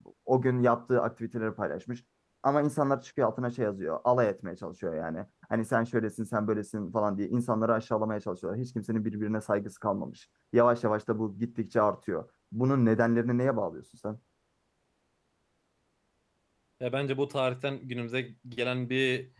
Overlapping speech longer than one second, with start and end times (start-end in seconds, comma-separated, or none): none